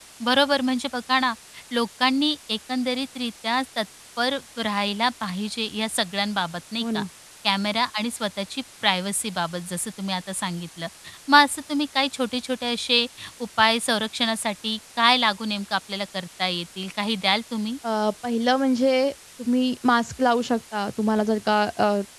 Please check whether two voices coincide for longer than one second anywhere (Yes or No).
No